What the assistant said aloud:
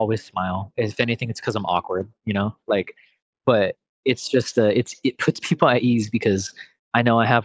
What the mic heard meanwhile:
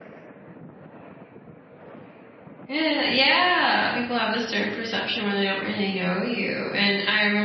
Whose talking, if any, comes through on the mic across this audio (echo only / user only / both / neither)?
user only